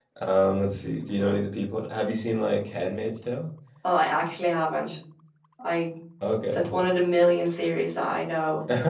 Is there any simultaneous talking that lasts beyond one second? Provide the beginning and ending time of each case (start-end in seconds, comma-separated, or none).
none